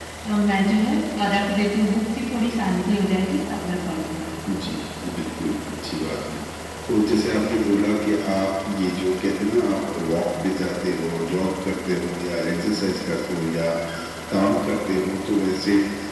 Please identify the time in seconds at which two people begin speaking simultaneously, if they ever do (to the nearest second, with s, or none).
none